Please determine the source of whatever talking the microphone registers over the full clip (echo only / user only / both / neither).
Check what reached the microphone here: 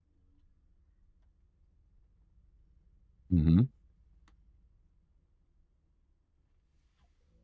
user only